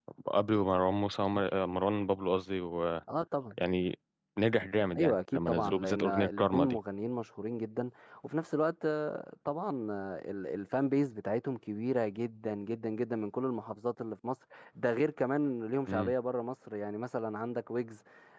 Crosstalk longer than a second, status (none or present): present